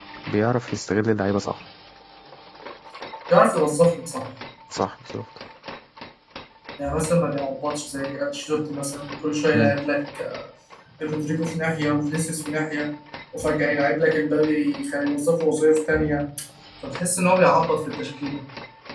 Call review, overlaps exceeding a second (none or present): none